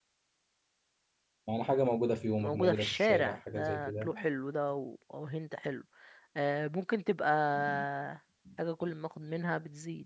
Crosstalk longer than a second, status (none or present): present